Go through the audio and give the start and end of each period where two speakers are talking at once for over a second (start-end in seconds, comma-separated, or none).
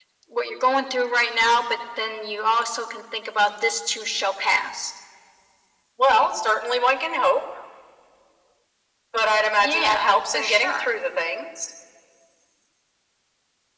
9.6-10.9